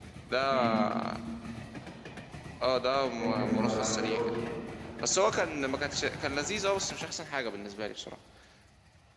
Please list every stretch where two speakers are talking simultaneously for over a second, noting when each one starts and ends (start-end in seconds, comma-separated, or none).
3.2-4.4